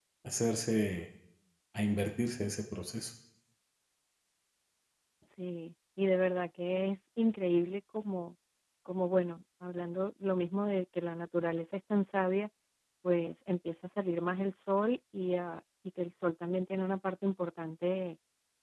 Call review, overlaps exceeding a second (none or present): none